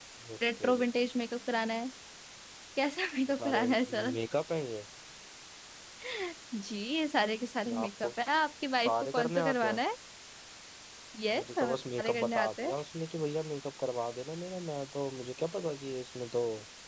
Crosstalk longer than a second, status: present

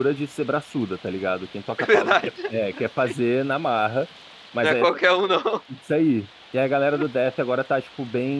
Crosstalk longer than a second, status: present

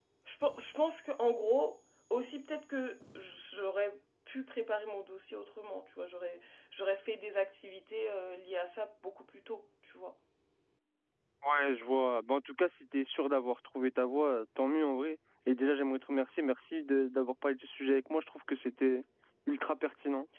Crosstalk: none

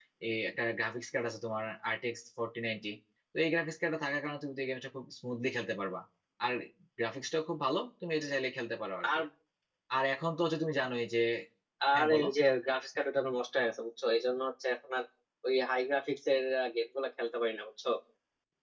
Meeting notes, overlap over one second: none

